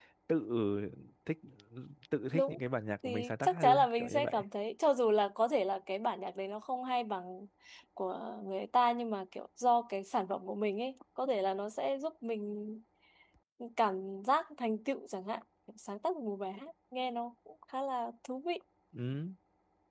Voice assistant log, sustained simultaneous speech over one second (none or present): present